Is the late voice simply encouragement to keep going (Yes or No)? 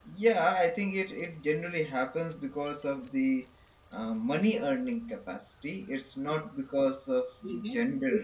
No